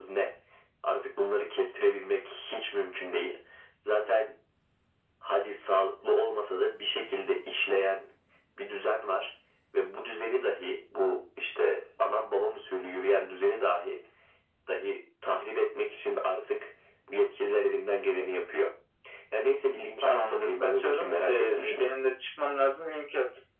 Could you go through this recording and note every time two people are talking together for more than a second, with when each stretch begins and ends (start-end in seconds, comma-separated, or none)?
20.0-21.9